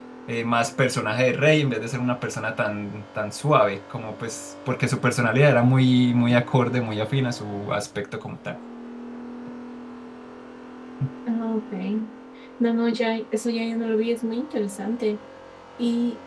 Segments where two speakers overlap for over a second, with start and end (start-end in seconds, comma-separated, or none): none